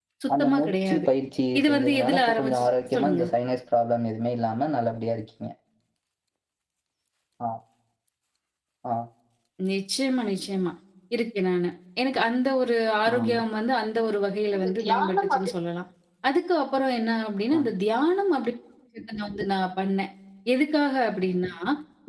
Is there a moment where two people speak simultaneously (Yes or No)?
Yes